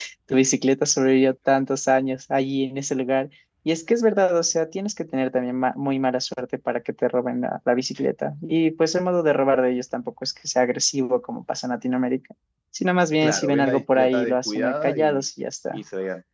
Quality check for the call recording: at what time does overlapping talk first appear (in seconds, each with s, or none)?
13.2 s